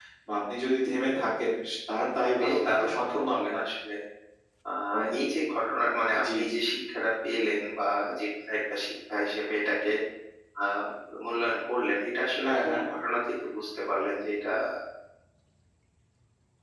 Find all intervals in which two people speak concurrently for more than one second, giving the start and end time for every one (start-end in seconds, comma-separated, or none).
2.3-3.6